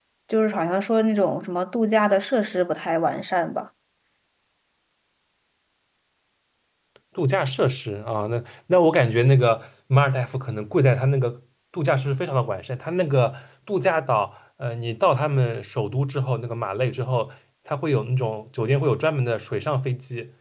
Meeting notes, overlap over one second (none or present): none